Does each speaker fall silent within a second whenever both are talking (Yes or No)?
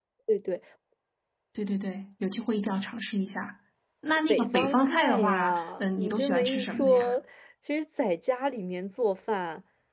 No